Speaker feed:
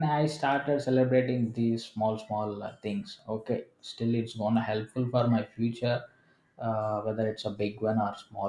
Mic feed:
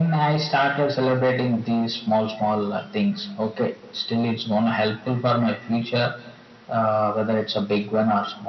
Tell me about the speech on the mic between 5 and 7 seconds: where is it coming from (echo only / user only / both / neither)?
echo only